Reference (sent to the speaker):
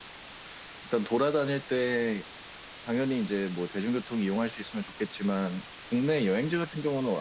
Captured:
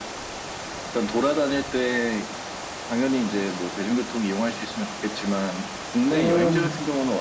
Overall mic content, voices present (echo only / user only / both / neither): both